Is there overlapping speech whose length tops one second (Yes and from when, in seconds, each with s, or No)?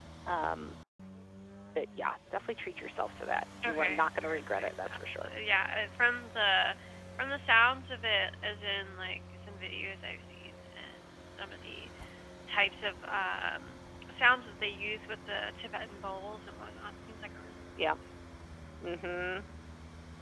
Yes, from 3.6 s